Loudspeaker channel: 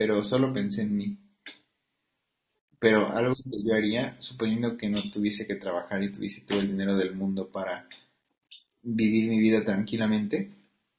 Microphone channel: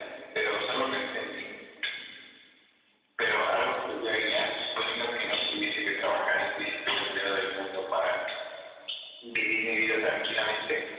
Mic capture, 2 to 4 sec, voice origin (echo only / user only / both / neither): echo only